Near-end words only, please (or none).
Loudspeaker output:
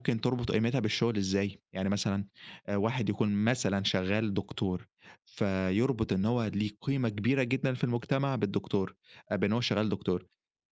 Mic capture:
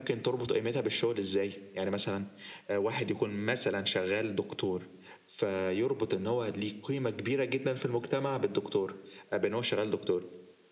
none